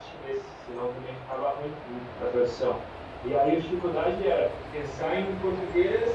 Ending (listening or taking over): listening